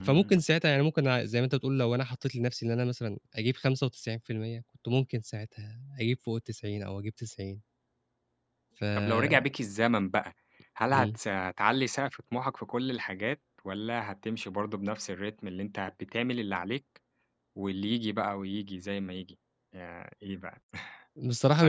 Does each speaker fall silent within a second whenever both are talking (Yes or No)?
Yes